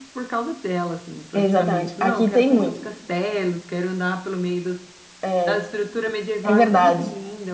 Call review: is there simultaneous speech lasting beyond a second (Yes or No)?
Yes